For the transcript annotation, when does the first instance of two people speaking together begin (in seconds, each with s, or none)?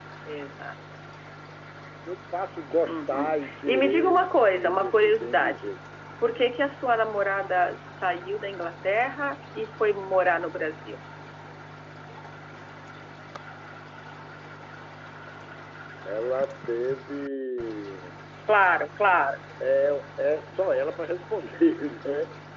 2.9 s